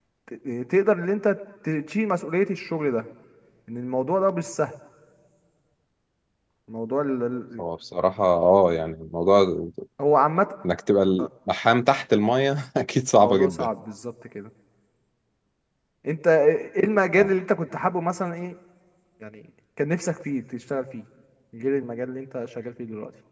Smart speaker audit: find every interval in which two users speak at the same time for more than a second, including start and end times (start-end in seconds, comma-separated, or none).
none